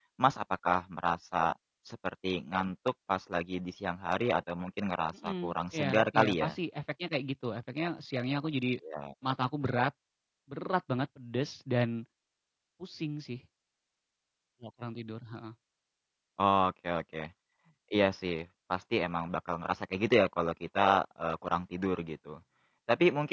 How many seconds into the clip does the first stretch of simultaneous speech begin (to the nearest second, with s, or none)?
5 s